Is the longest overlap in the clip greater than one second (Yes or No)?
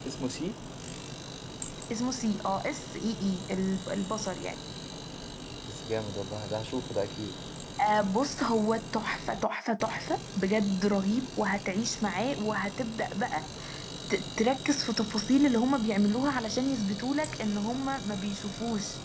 No